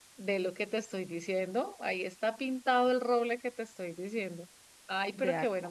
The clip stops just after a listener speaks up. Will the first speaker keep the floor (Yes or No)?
Yes